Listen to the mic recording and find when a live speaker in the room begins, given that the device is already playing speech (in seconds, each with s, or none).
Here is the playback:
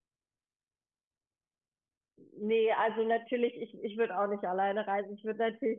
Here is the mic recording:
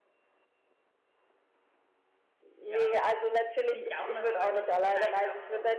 2.6 s